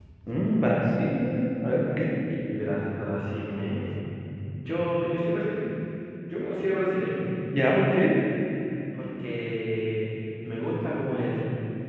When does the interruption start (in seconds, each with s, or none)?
none